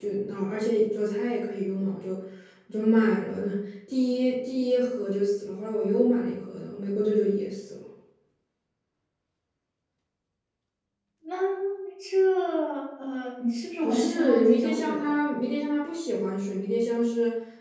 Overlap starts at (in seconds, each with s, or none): 13.8 s